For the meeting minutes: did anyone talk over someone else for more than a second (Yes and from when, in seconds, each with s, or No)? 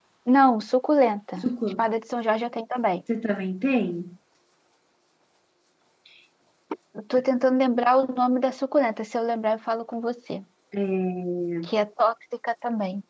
No